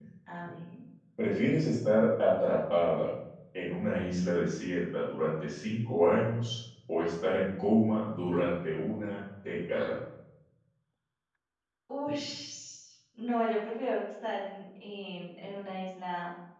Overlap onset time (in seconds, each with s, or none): none